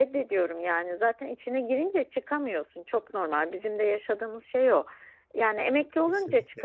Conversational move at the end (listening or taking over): listening